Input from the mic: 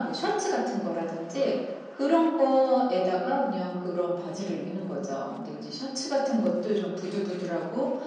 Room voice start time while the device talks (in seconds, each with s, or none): none